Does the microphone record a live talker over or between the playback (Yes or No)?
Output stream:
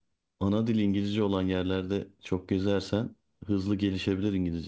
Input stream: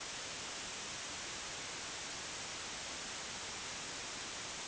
No